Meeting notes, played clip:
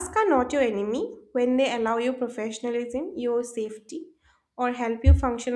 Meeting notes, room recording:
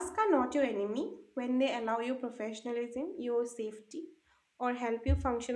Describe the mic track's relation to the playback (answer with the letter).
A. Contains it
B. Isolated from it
A